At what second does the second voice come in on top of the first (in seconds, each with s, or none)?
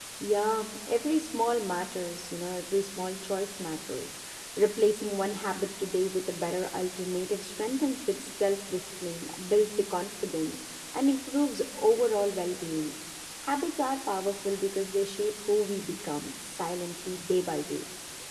none